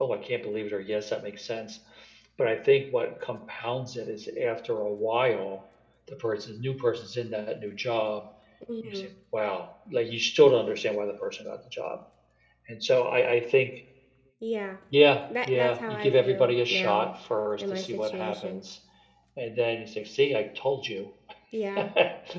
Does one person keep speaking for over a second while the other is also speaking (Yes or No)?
Yes